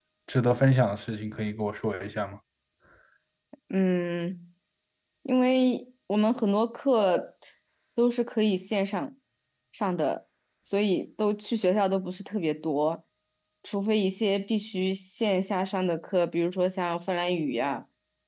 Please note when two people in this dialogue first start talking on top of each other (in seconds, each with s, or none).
none